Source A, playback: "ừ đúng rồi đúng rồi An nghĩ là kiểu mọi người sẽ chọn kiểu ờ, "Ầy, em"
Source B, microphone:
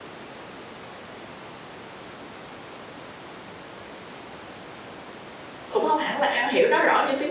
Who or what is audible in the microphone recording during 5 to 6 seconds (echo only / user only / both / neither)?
user only